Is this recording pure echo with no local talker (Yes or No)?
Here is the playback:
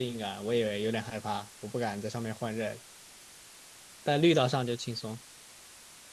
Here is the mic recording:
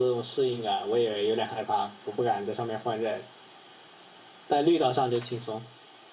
Yes